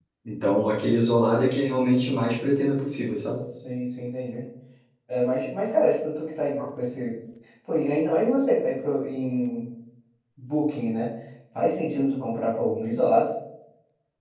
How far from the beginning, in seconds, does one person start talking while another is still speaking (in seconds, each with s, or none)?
none